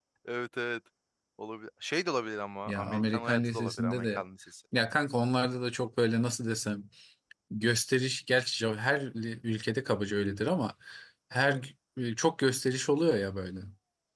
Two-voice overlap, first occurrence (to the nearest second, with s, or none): 3 s